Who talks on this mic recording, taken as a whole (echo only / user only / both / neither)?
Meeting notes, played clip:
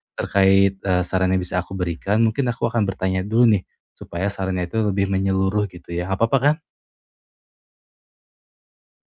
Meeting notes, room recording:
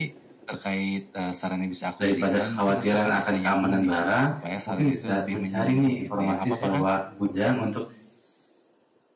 both